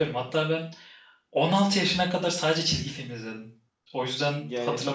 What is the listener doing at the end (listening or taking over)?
taking over